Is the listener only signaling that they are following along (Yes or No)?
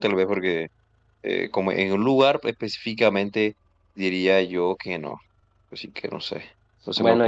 No